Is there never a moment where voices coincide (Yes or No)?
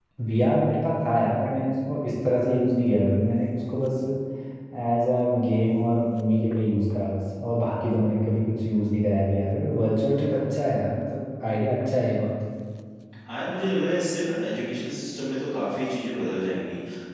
Yes